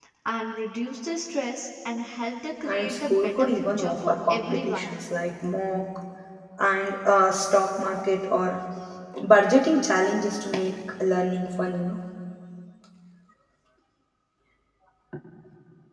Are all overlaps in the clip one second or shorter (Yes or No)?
No